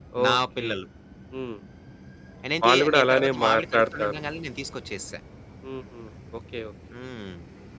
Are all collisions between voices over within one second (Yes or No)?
No